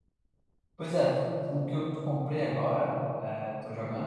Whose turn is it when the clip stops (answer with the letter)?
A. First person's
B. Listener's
A